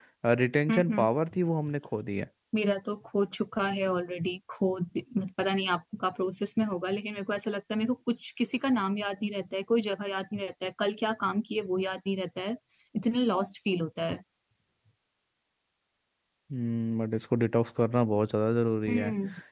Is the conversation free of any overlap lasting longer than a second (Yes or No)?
Yes